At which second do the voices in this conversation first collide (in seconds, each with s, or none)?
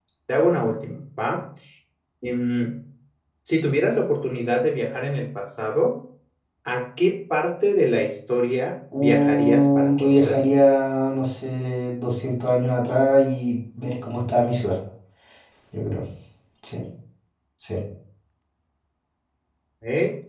8.9 s